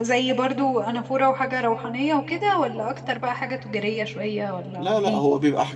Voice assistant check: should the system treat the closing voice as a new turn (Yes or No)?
Yes